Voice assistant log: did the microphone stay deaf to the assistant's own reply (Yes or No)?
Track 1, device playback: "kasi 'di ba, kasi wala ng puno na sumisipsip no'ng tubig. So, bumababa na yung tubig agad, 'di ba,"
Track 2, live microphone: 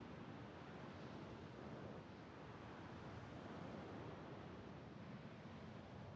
Yes